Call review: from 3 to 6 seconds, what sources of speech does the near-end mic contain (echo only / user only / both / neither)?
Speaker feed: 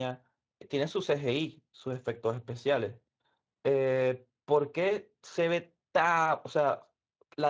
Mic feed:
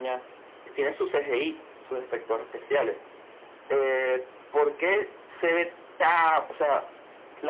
echo only